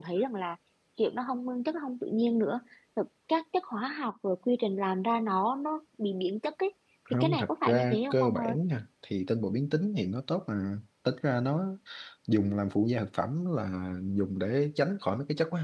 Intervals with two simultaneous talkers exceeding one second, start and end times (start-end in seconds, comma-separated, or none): 7.2-8.6